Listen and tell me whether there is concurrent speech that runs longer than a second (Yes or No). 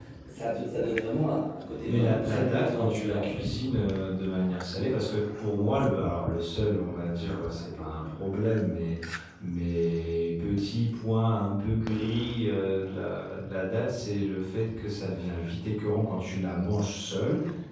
Yes